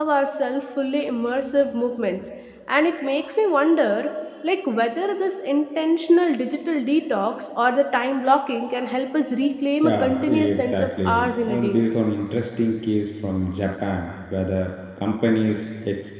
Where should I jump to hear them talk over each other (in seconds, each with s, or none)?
9.8 s